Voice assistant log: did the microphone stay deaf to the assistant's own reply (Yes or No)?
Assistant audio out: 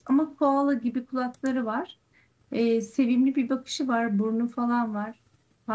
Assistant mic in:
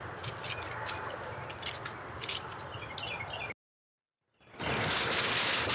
Yes